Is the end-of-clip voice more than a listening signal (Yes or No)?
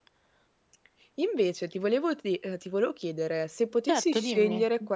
No